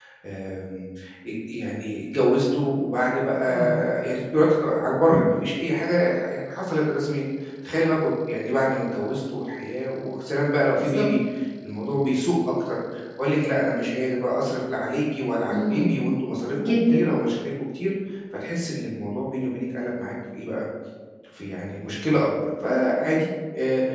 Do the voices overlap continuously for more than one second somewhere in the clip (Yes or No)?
No